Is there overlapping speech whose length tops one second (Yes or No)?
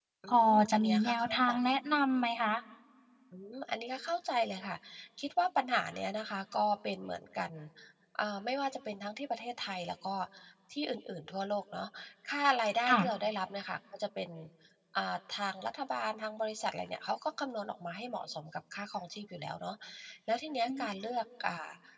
Yes